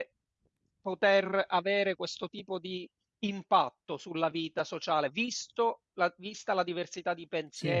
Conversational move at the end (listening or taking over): listening